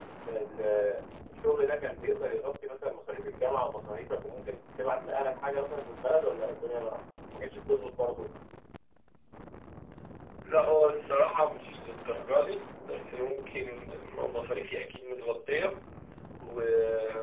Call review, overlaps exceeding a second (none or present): none